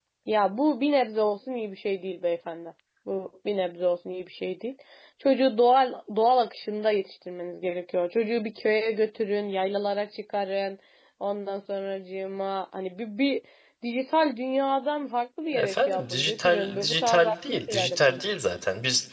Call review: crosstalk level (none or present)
present